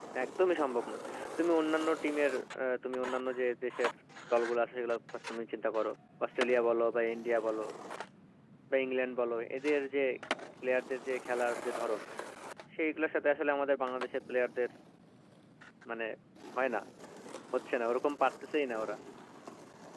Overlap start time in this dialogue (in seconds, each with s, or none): none